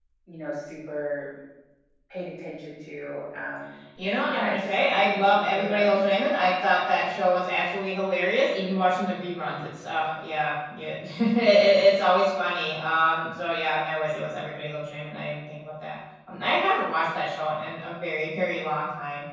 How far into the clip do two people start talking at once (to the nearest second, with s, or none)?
4 s